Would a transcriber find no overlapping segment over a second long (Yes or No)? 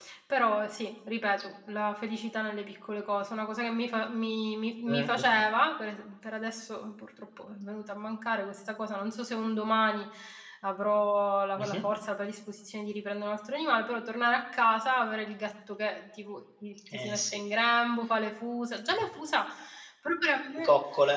Yes